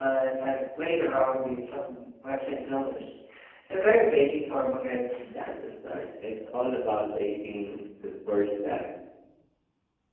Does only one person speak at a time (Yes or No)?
Yes